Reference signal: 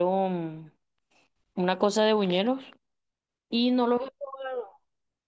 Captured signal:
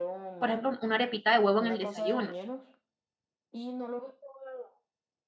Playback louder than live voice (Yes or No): No